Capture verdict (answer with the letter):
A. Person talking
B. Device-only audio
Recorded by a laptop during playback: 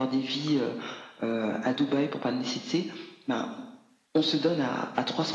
B